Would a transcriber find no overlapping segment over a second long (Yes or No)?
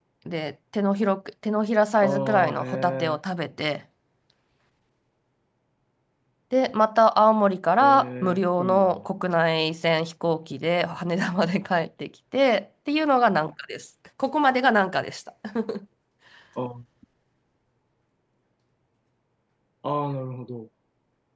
No